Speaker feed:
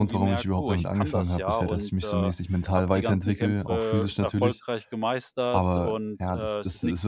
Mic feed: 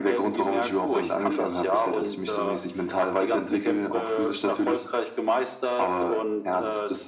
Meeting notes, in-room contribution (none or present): none